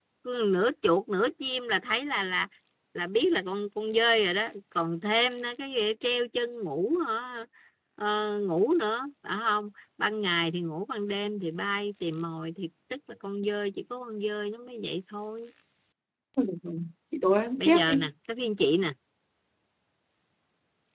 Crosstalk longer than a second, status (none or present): none